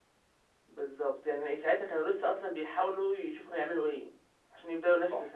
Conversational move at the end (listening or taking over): taking over